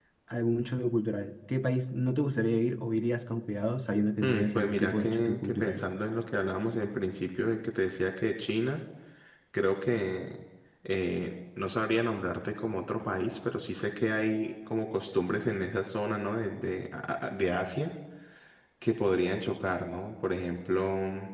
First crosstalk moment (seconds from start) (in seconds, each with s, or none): 4.2 s